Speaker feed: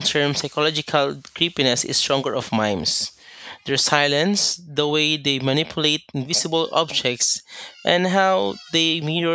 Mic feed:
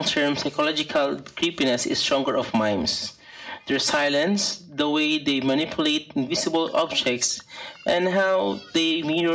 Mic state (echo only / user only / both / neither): echo only